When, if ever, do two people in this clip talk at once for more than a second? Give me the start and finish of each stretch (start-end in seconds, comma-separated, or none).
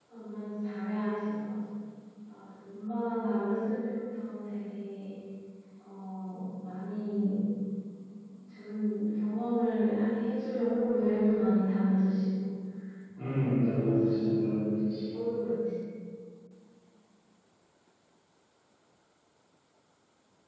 13.2-14.5